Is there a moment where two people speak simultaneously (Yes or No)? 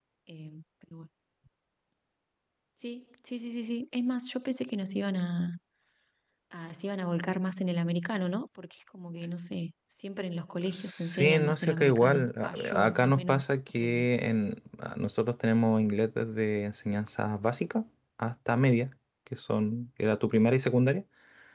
Yes